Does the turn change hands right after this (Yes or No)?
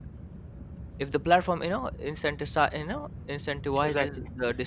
No